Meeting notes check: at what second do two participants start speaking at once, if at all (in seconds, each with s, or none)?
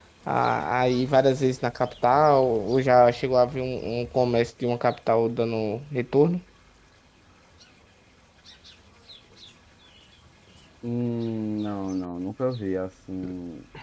none